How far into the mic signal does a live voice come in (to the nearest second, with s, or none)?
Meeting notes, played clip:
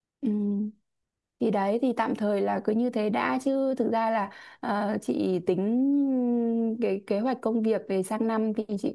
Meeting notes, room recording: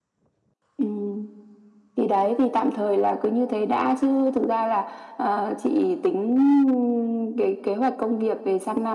none